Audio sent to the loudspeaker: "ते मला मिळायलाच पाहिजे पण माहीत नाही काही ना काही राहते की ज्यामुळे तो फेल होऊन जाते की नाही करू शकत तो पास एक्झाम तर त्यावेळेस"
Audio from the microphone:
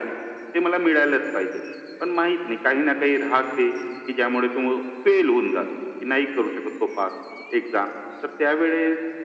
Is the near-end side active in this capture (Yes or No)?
No